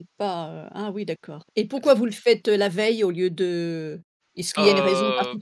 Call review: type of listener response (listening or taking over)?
taking over